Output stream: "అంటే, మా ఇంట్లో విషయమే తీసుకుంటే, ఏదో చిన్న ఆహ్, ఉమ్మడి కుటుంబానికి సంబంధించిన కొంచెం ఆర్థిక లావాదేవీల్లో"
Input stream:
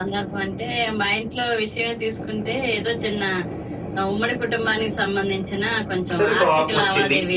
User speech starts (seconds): 6 s

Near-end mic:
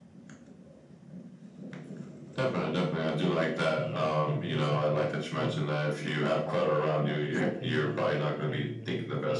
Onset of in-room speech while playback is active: 4 s

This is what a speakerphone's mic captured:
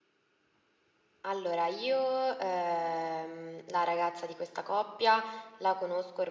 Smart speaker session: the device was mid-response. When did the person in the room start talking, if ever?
1 s

